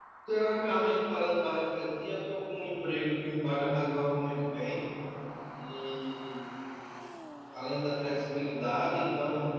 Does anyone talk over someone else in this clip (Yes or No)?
No